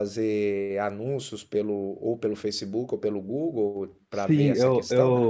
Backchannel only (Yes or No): No